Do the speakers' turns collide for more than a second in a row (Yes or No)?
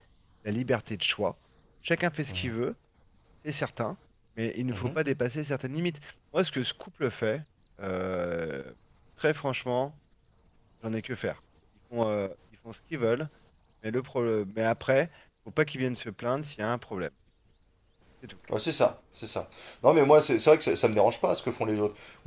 No